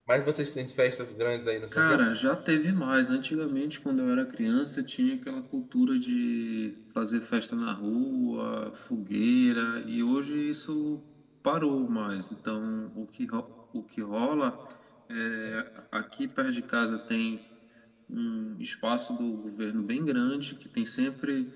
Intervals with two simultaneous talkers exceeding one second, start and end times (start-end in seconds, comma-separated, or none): none